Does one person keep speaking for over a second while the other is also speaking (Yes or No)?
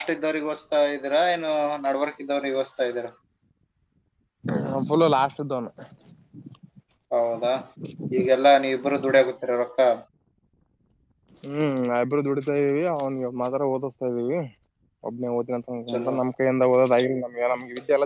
No